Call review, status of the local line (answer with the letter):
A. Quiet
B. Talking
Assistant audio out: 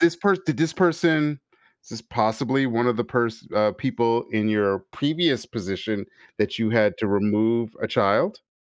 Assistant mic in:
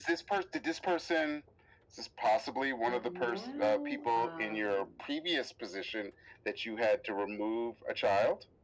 B